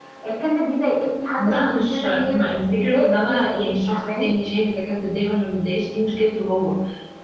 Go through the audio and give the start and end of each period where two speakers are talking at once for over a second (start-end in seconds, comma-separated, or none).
1.4-4.3